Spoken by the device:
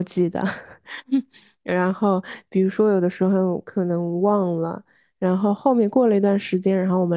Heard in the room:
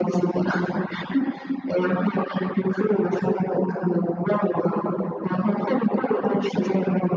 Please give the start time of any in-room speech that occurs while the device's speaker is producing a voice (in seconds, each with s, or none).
none